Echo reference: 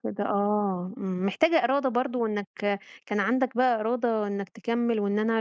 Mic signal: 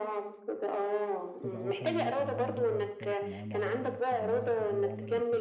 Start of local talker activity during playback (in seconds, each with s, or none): 1.3 s